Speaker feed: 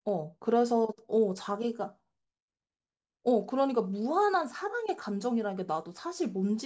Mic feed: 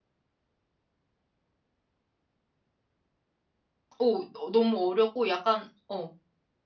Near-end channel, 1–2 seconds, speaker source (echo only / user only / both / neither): neither